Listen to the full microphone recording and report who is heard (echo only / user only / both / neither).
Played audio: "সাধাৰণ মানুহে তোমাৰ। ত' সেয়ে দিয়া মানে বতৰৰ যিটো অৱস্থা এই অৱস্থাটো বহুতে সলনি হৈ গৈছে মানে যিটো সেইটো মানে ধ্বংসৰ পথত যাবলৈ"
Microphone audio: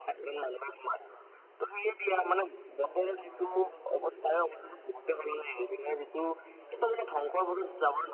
both